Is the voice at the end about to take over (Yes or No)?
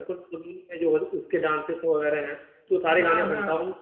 No